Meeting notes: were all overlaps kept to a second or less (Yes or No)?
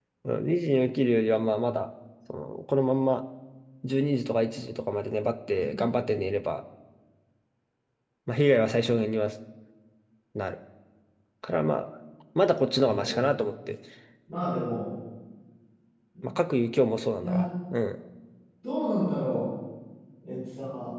Yes